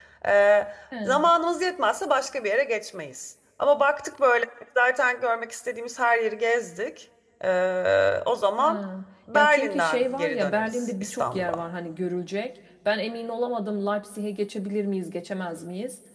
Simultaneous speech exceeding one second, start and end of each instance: 9.3-11.6

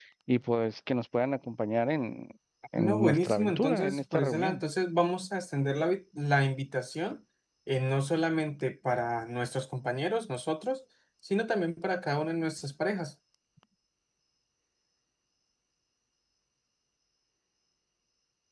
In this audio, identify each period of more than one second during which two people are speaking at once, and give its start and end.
2.8-4.6

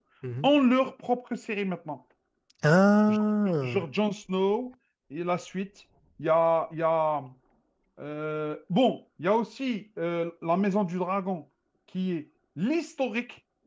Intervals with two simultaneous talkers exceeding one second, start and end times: none

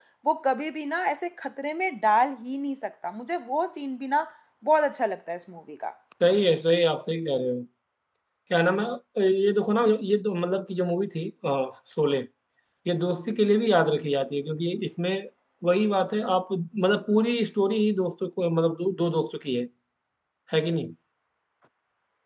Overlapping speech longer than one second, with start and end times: none

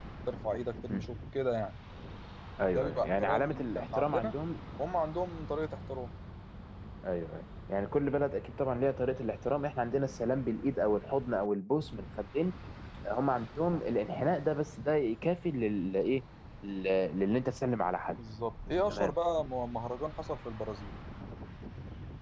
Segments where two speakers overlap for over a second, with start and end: 2.7-4.3

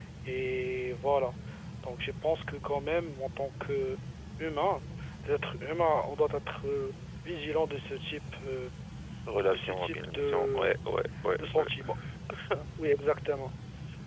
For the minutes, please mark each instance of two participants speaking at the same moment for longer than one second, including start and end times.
9.5-10.7

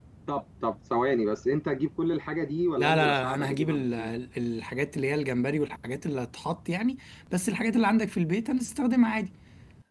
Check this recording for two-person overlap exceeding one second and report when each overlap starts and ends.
2.8-4.1

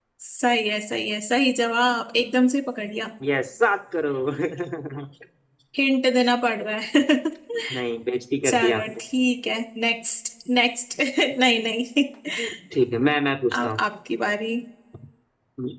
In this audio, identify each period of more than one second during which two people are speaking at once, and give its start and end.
none

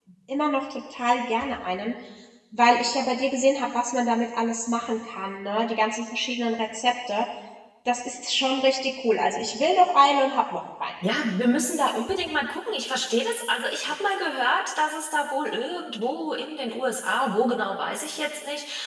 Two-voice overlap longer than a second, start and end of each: none

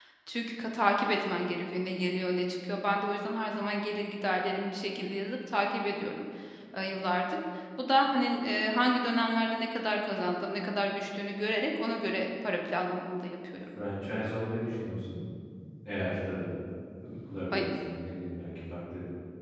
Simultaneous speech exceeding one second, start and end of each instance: none

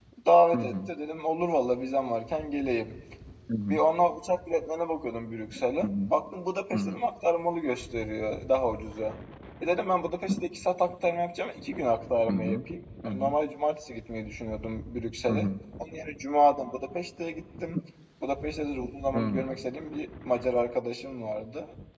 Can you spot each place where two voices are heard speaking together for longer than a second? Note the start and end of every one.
none

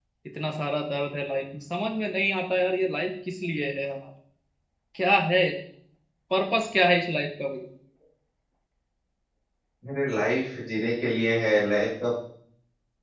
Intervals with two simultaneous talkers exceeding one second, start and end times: none

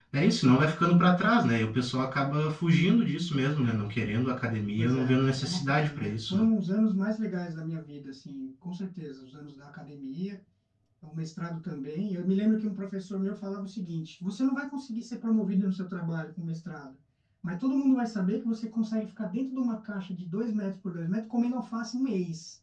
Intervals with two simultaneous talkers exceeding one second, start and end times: 4.8-6.5

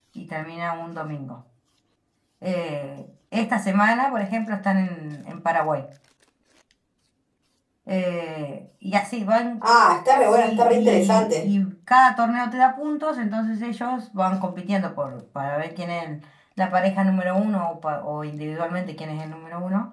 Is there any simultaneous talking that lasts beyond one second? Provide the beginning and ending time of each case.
10.2-11.4

